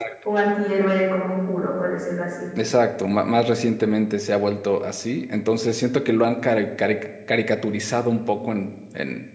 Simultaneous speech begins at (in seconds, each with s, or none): none